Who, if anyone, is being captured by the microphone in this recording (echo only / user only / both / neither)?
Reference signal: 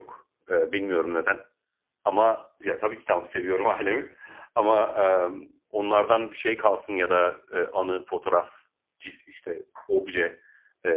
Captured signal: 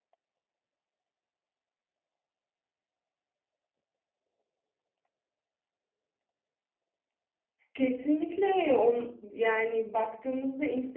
user only